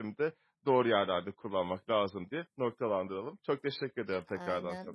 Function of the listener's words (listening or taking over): taking over